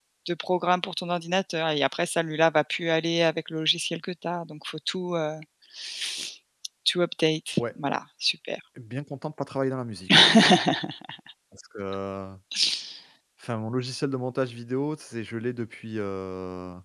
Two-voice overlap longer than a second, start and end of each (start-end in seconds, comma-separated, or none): none